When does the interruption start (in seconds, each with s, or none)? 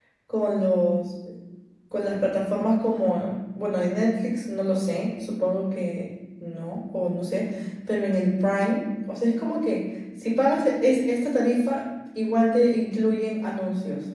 none